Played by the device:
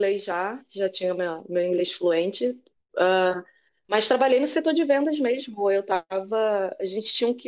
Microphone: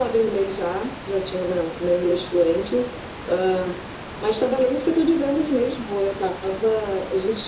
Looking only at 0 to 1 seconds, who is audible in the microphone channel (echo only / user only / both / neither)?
echo only